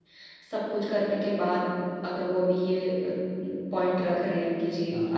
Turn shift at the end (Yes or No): No